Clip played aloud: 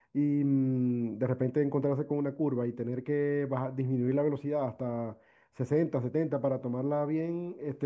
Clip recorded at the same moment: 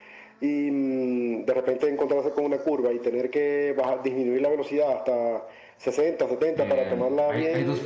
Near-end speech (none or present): present